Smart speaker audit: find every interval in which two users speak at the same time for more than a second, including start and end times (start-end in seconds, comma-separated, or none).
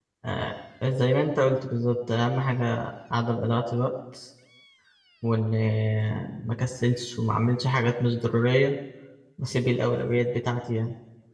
none